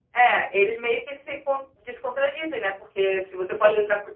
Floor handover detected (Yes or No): No